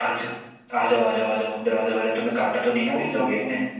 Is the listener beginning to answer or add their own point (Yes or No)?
Yes